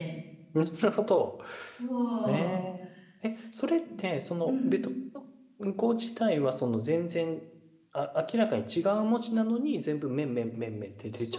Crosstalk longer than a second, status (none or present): none